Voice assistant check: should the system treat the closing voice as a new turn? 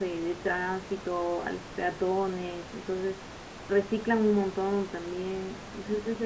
No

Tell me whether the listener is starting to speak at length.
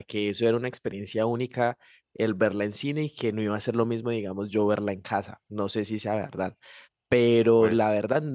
No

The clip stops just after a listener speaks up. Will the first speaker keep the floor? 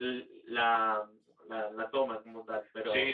No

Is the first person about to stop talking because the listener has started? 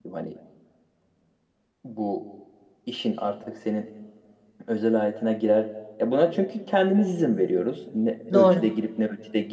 No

